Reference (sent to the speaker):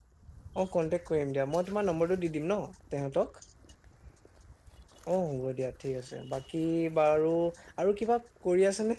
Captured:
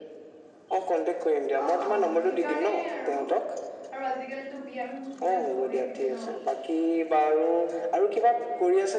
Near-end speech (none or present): present